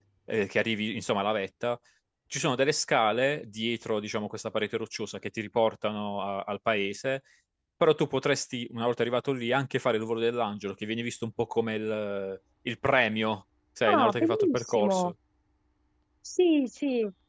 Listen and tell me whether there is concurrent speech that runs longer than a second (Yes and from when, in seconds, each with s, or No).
Yes, from 13.9 s